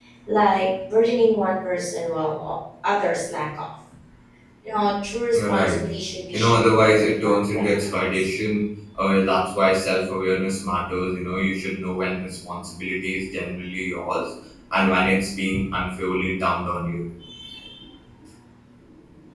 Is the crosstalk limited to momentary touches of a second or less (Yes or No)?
No